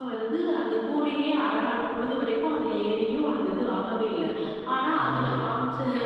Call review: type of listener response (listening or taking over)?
listening